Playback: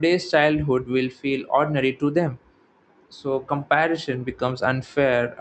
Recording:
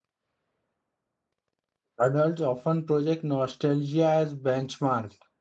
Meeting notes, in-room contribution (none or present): present